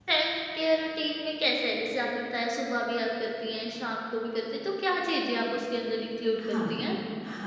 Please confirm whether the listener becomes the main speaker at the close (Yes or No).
Yes